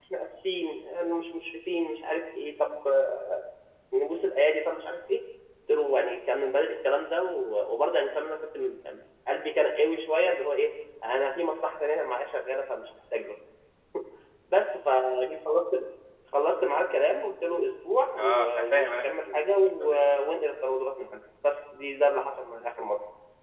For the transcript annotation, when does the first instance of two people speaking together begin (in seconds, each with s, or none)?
18.2 s